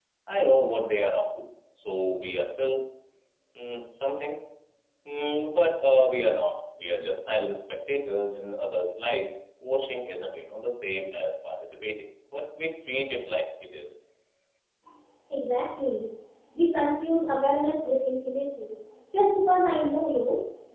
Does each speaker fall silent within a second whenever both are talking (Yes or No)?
Yes